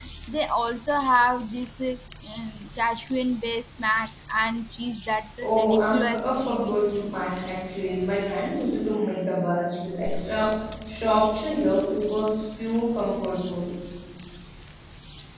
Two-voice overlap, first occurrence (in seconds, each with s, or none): 5.4 s